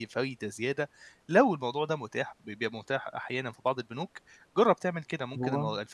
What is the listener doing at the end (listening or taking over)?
listening